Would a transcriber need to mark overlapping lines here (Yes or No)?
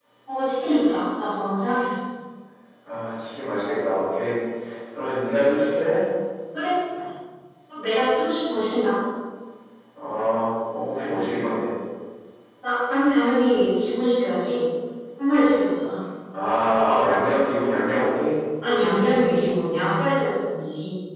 No